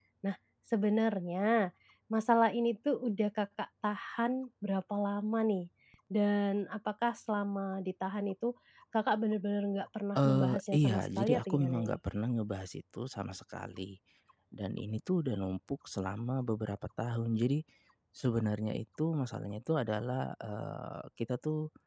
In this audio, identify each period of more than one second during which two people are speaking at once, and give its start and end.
10.2-12.0

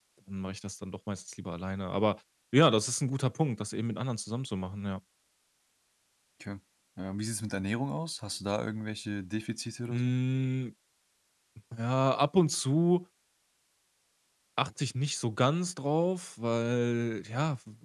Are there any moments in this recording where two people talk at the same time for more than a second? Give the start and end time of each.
none

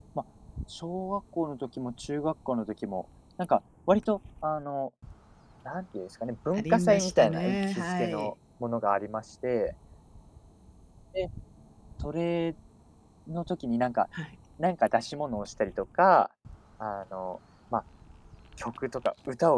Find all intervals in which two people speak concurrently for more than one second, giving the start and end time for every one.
6.5-8.3

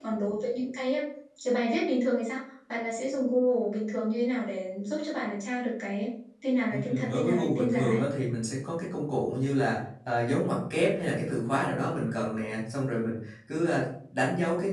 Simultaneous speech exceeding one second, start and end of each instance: 6.7-8.0

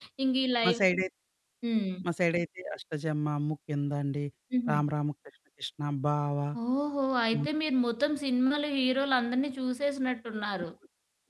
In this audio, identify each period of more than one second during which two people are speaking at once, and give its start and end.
none

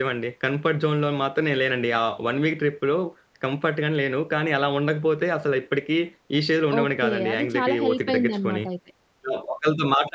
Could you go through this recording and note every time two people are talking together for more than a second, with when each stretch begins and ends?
6.8-8.6

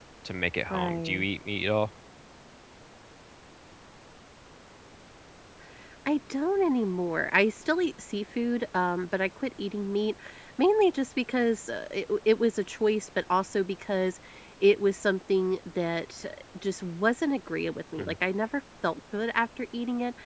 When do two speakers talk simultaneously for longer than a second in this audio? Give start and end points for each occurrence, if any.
none

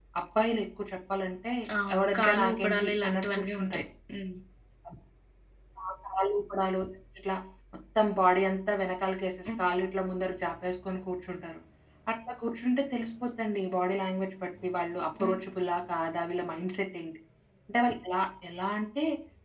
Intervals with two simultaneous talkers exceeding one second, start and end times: 2.0-3.8

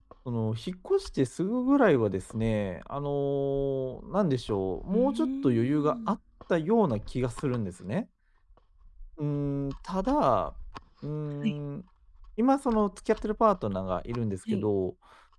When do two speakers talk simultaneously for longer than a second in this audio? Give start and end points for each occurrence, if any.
4.9-6.2

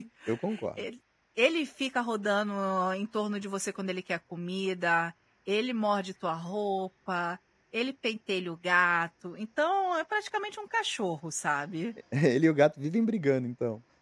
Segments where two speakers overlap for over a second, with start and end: none

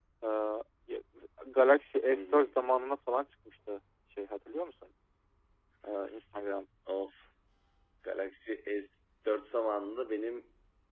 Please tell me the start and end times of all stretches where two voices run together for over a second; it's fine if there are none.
none

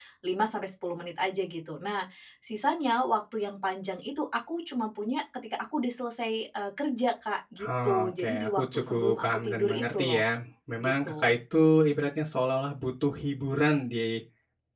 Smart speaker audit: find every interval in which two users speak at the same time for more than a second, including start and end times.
7.6-10.2

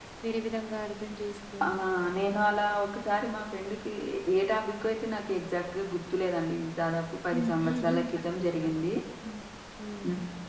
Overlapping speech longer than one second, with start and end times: 7.3-8.8

